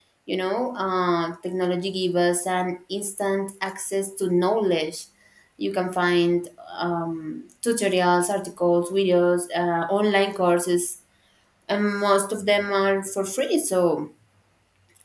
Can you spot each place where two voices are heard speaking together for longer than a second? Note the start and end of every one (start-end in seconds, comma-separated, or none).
none